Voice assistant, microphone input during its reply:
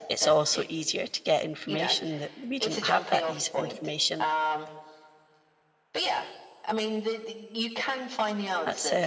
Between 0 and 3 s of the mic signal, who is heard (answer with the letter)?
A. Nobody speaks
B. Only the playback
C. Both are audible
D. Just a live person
C